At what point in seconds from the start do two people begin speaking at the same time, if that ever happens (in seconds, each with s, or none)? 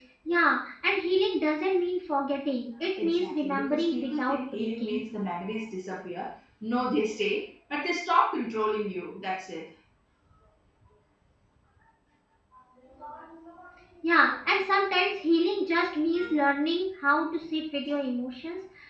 3.0 s